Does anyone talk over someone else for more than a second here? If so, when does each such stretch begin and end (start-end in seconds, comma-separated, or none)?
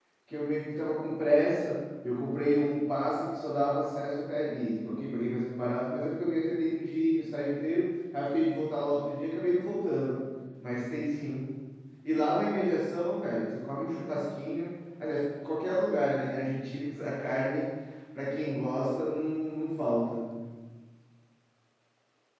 none